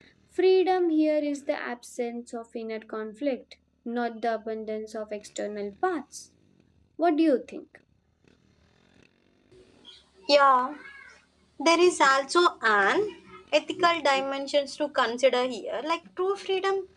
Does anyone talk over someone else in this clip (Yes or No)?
No